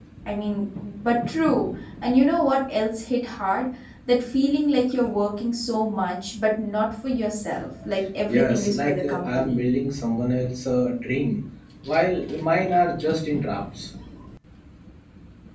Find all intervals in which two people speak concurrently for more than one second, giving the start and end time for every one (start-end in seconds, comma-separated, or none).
8.3-9.6